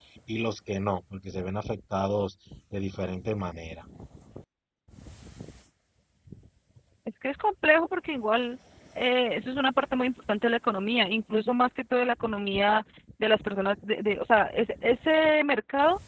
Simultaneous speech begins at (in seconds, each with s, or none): none